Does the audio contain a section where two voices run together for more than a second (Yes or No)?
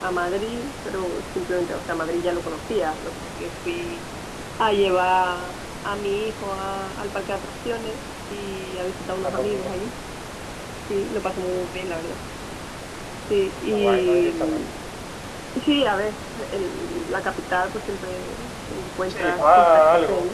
Yes